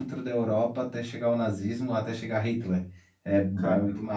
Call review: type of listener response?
listening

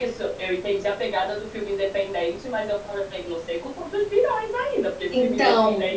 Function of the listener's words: listening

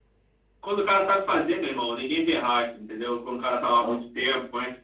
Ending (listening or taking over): listening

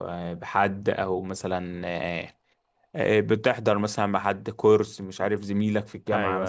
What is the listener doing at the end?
listening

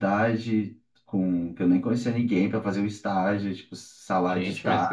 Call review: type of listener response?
taking over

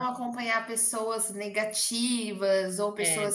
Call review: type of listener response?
listening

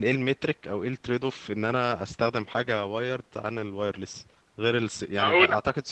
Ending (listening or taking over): listening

